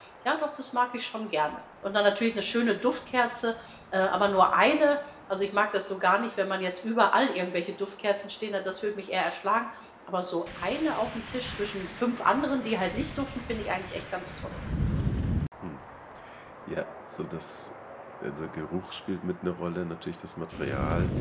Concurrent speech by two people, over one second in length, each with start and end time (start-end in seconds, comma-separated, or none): none